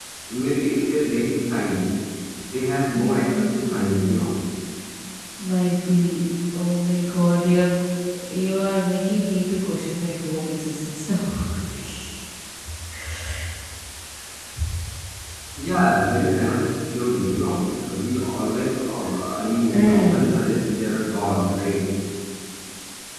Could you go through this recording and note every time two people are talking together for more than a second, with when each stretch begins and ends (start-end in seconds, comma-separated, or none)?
2.9-4.2